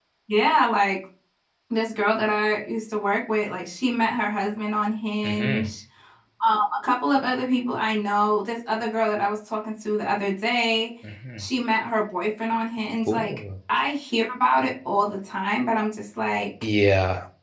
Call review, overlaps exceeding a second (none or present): none